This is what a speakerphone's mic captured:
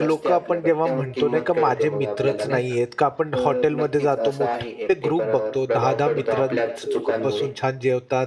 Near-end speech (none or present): present